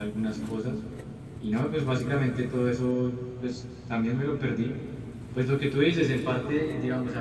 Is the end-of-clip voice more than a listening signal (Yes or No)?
No